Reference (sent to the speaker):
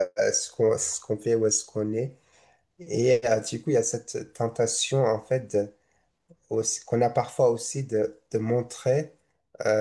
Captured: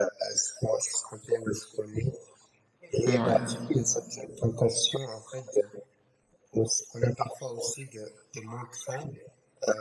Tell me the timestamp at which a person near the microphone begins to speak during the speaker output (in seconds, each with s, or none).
3.1 s